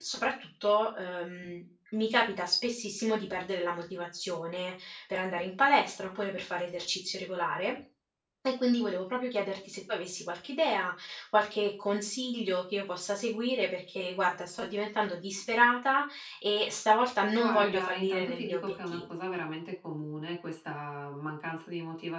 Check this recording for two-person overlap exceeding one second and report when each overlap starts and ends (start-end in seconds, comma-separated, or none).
17.4-19.0